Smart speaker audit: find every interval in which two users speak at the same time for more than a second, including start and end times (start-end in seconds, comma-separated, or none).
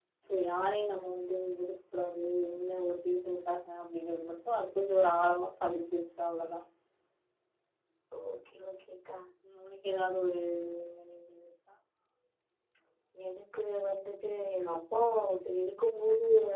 none